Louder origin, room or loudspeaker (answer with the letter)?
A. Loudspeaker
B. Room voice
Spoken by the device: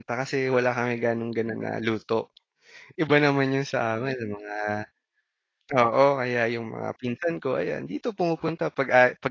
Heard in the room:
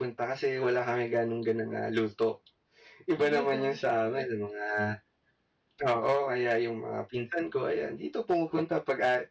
A